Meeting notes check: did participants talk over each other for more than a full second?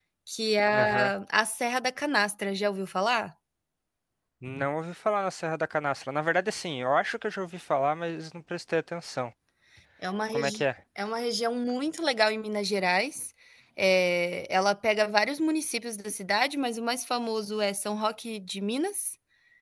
No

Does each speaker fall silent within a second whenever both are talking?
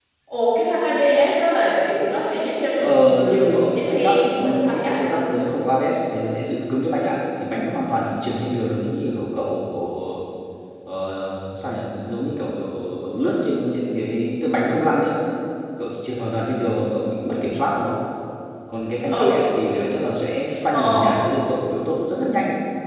No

